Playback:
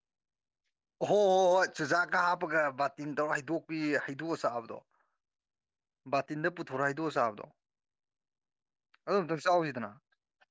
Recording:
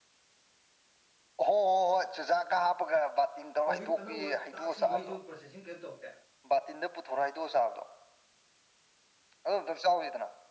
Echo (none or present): present